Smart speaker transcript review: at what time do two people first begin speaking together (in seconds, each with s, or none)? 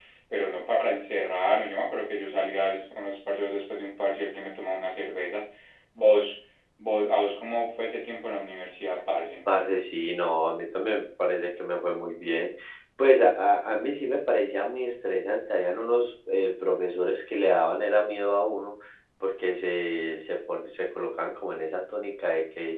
none